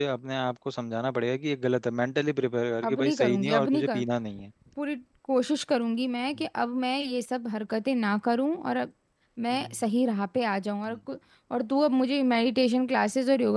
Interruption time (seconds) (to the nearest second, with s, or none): 3 s